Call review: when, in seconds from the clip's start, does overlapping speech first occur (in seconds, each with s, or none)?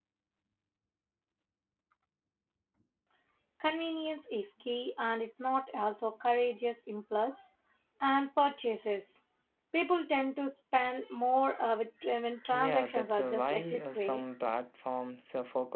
12.5 s